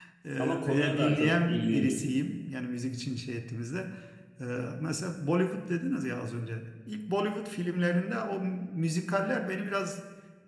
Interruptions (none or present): present